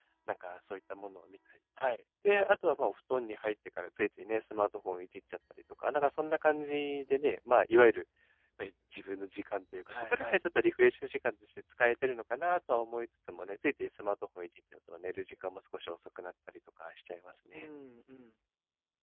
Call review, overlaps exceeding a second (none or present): none